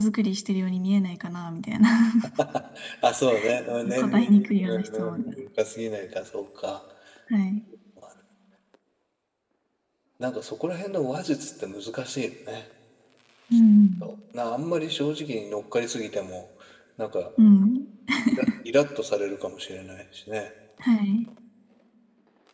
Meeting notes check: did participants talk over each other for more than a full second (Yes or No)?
Yes